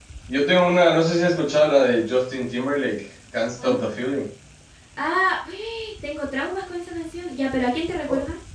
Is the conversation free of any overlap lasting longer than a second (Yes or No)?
Yes